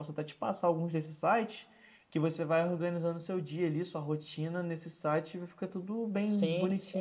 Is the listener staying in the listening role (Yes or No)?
No